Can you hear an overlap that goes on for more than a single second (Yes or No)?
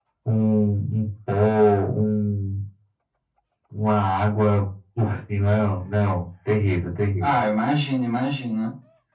No